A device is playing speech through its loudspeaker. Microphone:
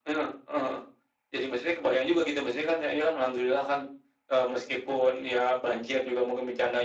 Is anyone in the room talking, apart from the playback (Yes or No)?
No